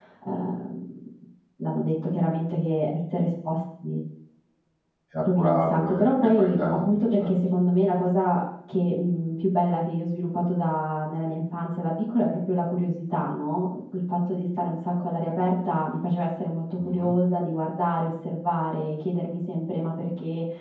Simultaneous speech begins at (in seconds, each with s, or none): 5.3 s